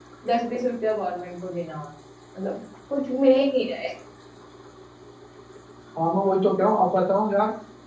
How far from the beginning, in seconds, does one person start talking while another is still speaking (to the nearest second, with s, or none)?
none